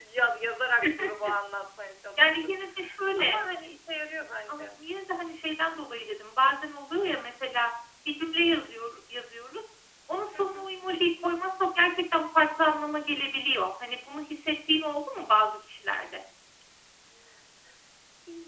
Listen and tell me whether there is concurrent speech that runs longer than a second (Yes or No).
No